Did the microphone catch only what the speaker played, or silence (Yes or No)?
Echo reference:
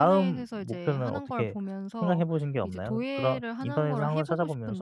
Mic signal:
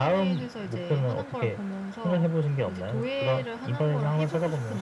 Yes